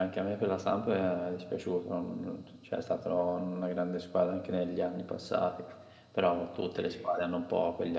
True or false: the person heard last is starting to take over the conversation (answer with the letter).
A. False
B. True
A